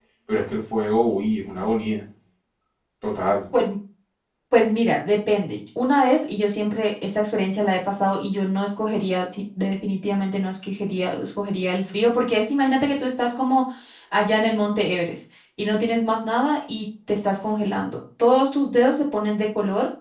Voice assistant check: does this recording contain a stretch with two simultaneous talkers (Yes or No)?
No